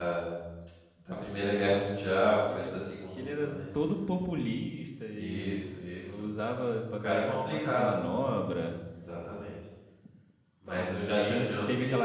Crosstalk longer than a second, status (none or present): present